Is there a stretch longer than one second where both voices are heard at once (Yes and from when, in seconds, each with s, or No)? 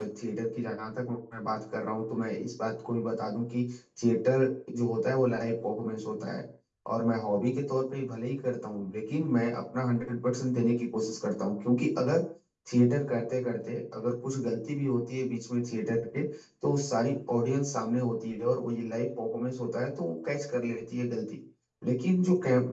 No